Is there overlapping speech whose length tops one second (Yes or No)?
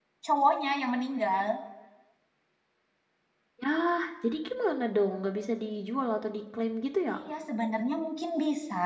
No